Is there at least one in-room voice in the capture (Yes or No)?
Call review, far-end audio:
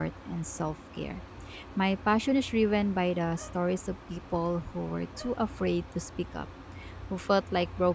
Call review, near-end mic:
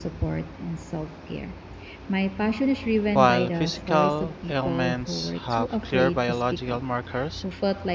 Yes